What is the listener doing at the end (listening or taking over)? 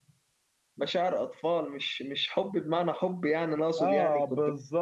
taking over